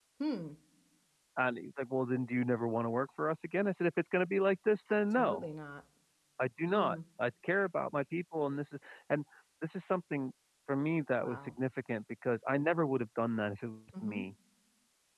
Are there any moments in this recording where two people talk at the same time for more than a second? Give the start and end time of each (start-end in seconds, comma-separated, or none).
none